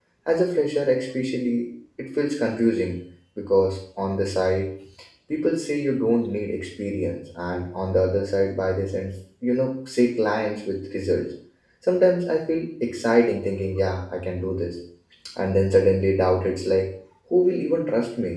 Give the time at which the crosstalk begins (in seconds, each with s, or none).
none